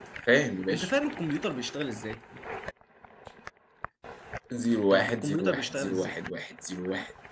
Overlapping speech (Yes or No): Yes